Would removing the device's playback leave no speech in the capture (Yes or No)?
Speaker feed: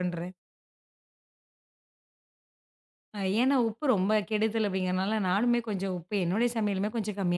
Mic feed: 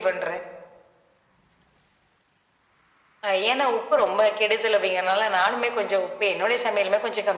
Yes